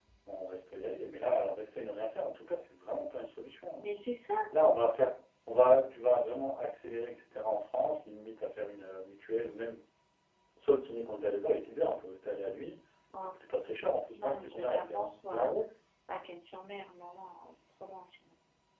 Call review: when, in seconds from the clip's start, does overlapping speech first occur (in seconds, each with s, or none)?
14.1 s